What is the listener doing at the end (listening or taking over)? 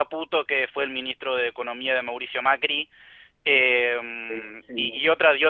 listening